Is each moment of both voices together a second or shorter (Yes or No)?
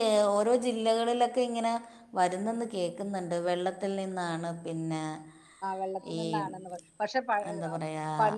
Yes